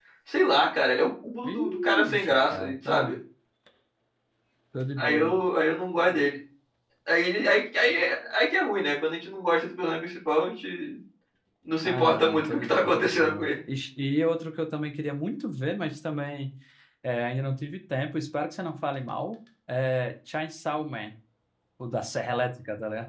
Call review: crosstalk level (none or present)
present